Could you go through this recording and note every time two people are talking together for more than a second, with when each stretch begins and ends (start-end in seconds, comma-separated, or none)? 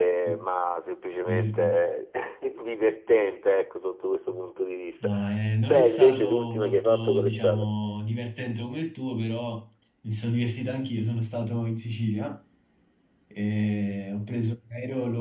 5.7-7.7